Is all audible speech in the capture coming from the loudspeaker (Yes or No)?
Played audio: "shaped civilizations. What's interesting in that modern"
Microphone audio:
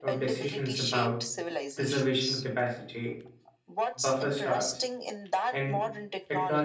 No